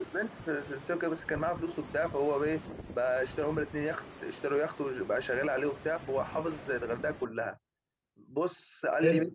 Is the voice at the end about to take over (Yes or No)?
No